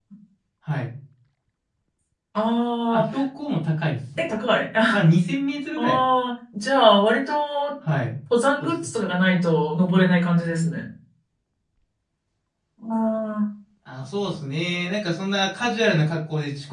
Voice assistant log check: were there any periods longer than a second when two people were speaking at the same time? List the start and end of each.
none

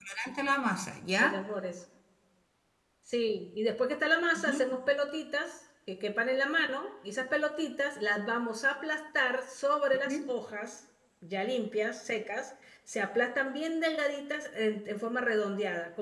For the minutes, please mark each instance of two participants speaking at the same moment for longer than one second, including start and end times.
none

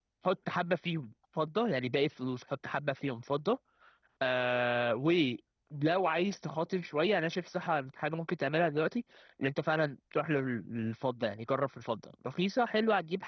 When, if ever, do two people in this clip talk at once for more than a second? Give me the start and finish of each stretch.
none

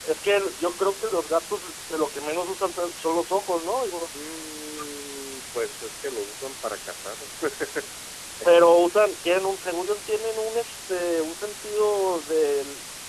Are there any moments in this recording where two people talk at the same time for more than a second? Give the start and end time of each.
none

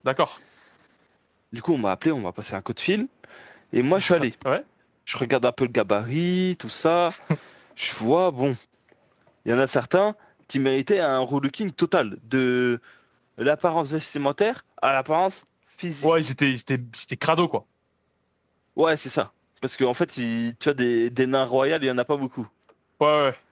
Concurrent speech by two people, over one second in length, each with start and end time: none

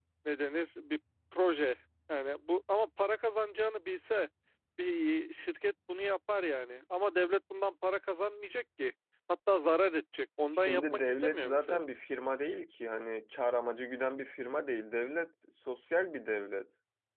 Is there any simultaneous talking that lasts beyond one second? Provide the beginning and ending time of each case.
10.5-11.8

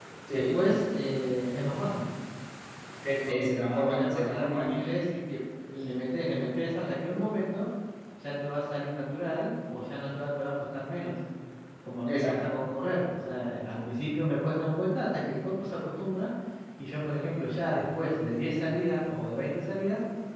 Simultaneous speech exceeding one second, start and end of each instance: 3.3-4.8

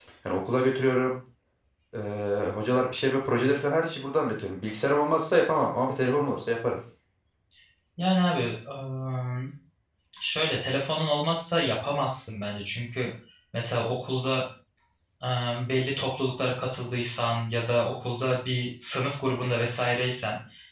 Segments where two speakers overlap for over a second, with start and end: none

